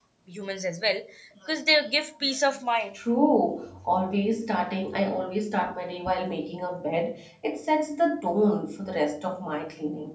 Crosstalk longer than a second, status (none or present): none